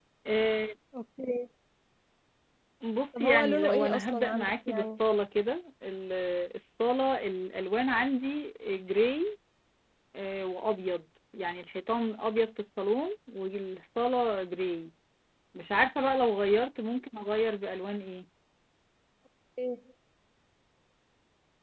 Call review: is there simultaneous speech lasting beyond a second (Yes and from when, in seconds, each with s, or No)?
Yes, from 3.2 s